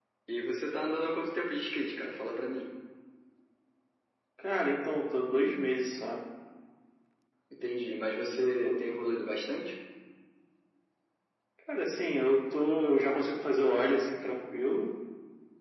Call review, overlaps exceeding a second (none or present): none